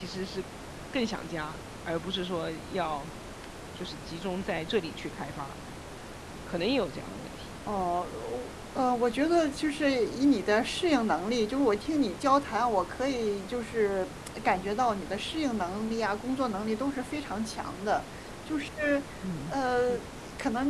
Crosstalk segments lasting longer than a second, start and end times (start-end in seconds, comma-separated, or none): none